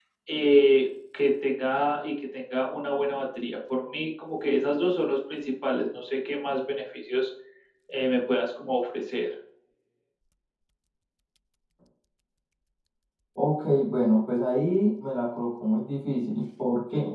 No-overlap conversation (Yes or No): Yes